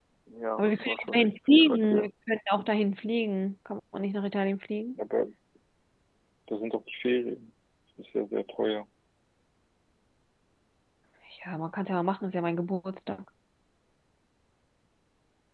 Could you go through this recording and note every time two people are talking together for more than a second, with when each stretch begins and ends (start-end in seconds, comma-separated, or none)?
0.6-2.1